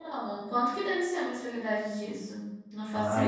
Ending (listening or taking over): taking over